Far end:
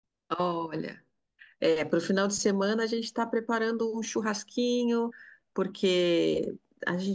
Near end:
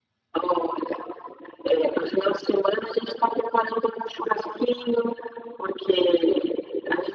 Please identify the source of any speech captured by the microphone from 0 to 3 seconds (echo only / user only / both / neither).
echo only